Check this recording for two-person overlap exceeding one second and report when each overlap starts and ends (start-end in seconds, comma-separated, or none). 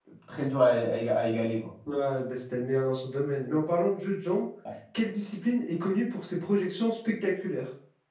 none